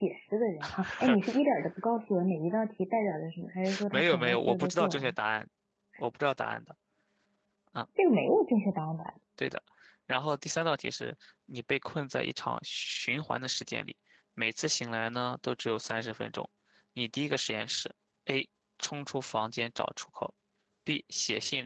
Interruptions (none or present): present